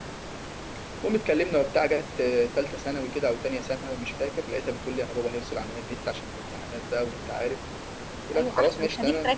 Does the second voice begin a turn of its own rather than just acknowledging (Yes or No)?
Yes